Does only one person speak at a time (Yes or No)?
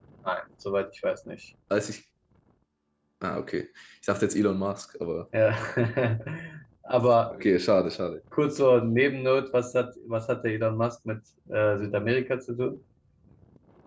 Yes